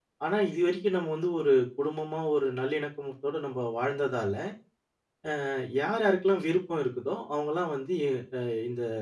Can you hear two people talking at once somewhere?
No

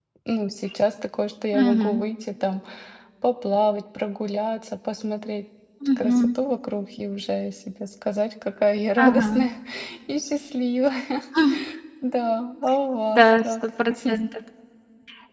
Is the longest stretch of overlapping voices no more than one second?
Yes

